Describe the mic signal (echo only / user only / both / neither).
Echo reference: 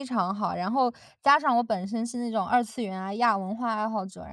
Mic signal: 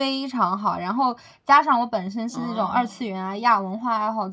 both